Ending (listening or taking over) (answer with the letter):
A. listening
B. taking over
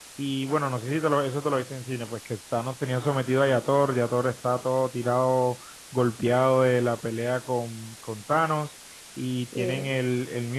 A